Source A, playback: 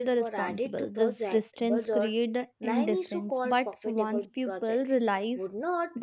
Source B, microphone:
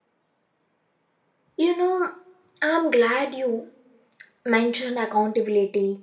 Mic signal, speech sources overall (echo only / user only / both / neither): user only